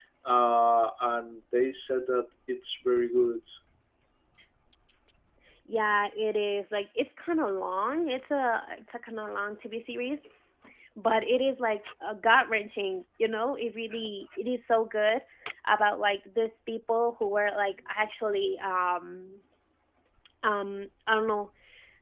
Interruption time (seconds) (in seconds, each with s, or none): none